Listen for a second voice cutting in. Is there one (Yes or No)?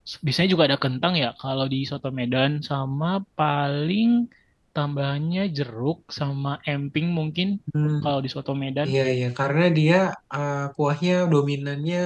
No